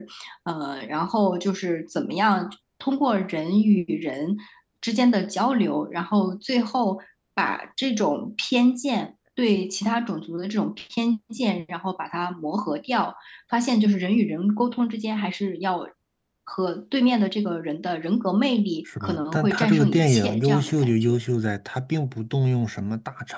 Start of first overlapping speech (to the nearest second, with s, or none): 19 s